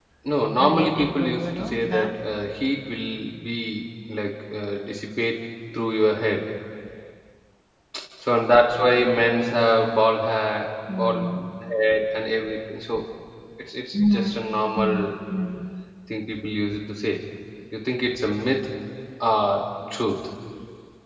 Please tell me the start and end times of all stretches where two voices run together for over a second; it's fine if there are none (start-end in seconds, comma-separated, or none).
0.6-2.1